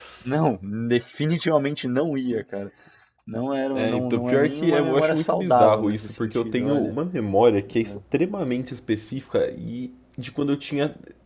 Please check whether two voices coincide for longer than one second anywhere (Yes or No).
Yes